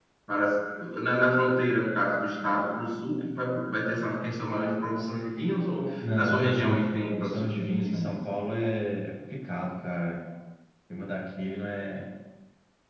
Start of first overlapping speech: 6.0 s

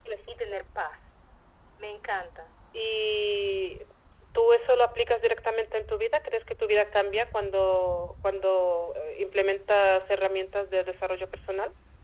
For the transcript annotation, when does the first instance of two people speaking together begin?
none

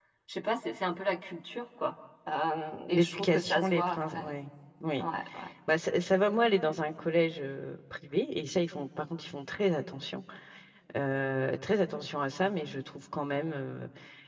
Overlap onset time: 2.9 s

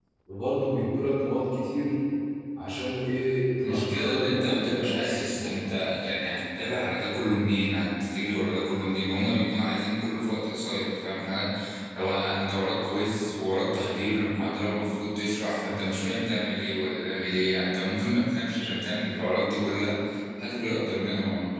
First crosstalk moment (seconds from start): 3.6 s

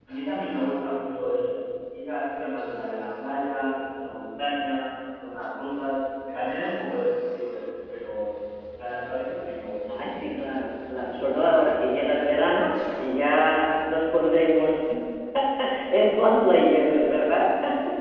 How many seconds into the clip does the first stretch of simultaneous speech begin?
none

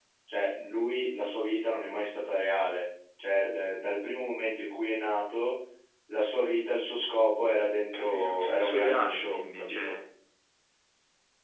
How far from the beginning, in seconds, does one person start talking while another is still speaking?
7.8 s

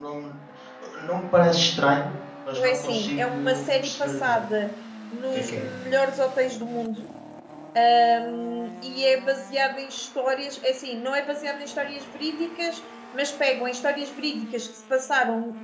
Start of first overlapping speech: 2.5 s

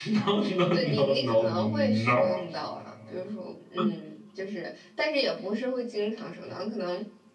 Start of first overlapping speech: 0.7 s

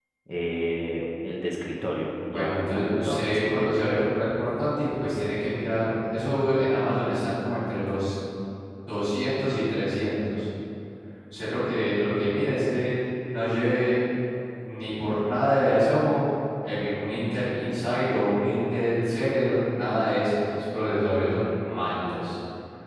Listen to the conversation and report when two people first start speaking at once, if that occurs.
2.3 s

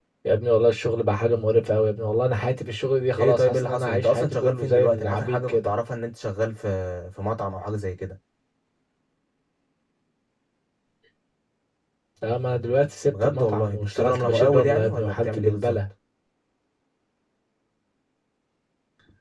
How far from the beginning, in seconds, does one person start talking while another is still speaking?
3.2 s

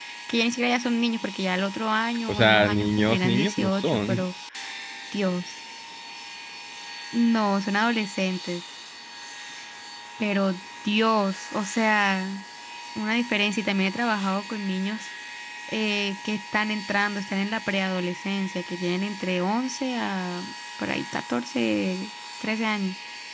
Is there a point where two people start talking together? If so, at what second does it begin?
2.3 s

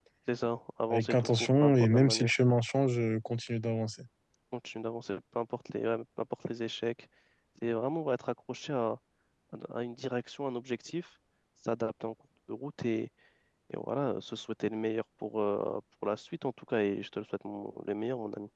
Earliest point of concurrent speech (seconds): 0.9 s

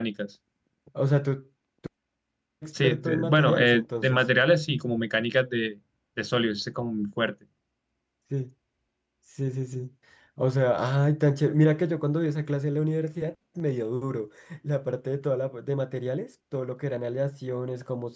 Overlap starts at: 2.8 s

